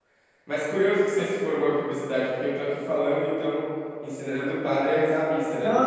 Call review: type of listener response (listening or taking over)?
taking over